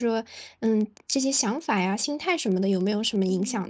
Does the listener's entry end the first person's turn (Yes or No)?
Yes